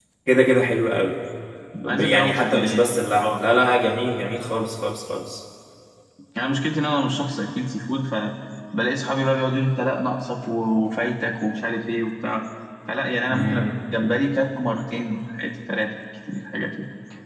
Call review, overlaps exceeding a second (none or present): present